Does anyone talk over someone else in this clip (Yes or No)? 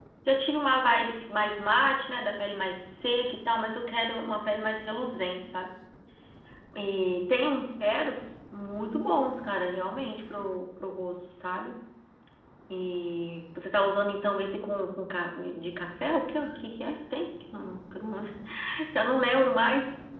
No